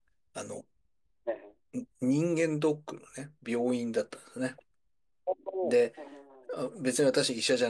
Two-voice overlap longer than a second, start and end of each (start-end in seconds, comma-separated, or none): none